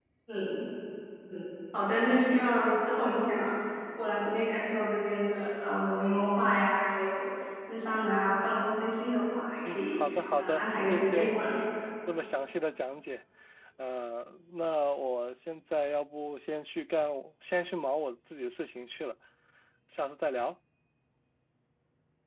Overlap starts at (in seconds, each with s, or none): 9.6 s